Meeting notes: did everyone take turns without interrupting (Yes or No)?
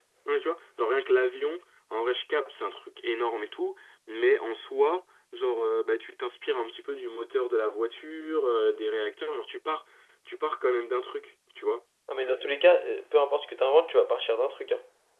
Yes